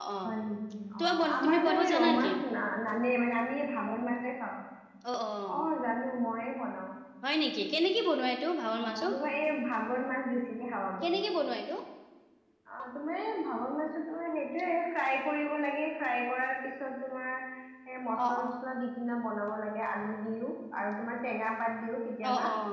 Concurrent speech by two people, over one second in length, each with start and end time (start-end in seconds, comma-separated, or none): 1.0-2.3